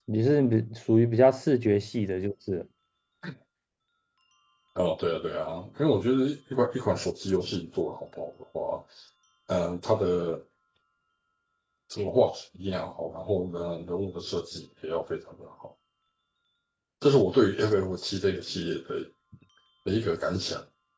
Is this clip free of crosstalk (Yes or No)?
Yes